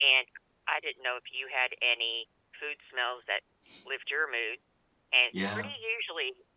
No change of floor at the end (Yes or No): Yes